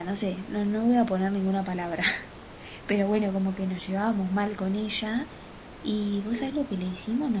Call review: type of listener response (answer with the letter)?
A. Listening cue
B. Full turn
A